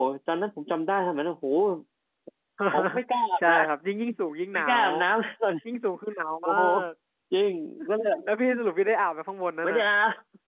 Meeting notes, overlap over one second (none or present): none